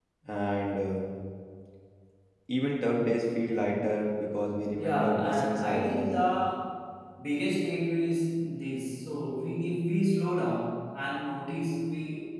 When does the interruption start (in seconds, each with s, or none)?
4.8 s